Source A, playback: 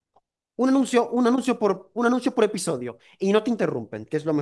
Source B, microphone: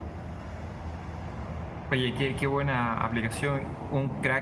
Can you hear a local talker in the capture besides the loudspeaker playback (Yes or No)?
Yes